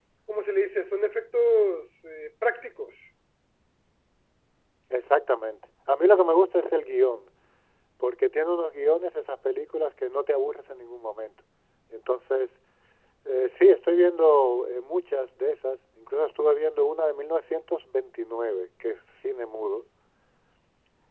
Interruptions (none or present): none